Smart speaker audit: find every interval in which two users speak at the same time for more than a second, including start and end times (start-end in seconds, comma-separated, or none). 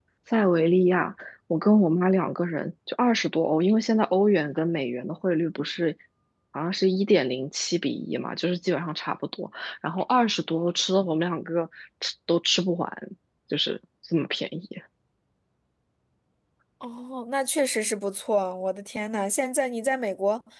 none